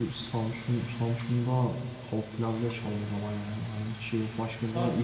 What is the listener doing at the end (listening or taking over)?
taking over